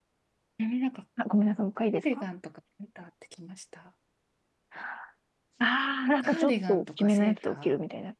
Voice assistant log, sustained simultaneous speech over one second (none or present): present